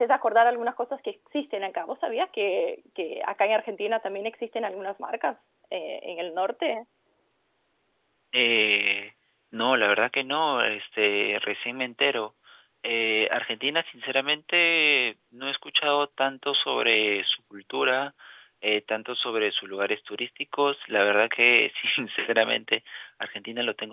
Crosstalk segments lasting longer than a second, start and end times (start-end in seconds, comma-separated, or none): none